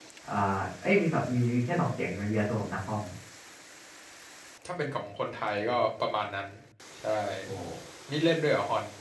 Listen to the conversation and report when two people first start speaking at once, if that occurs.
none

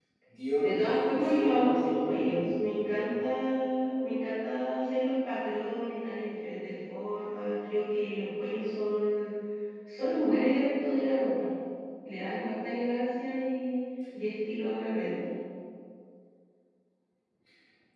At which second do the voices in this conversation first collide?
1 s

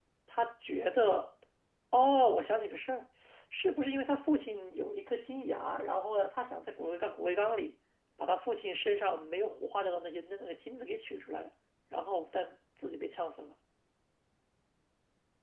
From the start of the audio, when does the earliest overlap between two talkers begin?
none

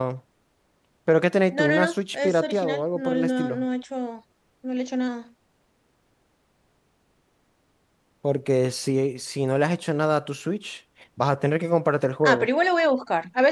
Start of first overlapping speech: 2 s

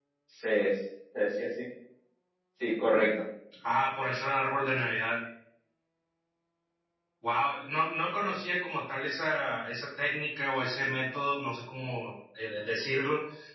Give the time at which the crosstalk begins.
none

